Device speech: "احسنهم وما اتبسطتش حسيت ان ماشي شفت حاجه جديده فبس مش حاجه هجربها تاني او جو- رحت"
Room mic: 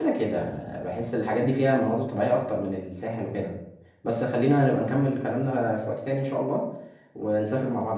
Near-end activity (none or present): present